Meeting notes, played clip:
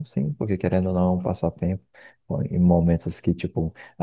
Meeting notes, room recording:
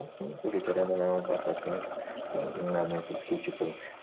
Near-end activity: none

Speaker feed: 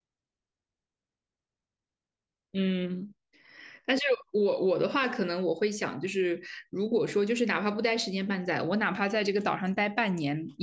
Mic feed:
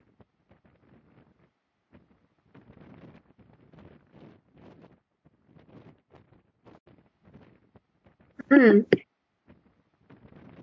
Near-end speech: present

